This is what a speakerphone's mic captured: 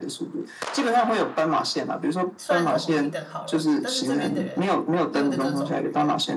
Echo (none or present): present